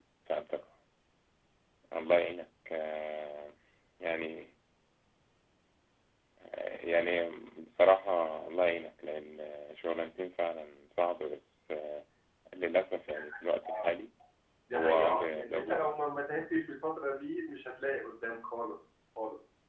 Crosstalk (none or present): present